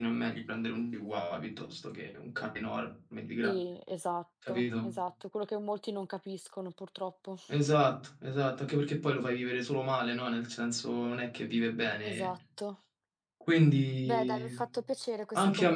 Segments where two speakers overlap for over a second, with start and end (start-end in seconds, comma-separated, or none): none